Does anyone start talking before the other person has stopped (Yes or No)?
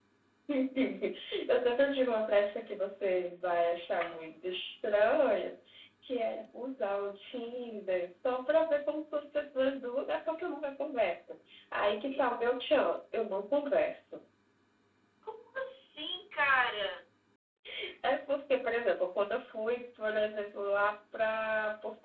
No